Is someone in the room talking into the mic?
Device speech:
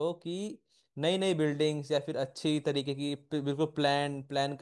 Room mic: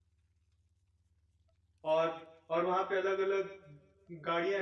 Yes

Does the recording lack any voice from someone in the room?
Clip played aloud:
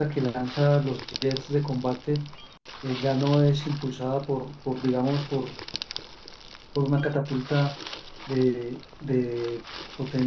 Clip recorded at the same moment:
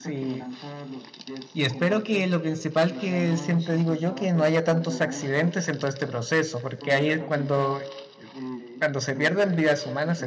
No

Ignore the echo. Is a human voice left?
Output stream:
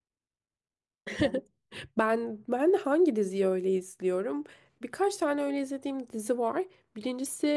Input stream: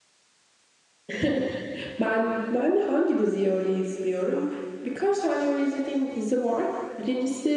No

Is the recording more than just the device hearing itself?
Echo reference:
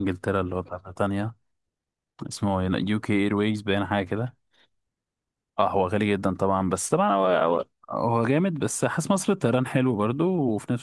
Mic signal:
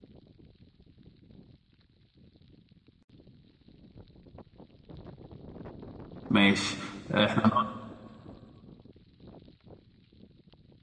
Yes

